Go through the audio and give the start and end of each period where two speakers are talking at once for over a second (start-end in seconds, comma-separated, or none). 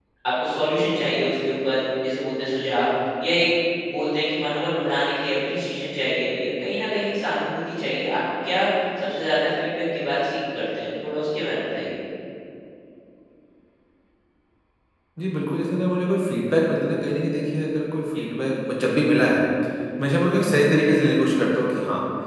none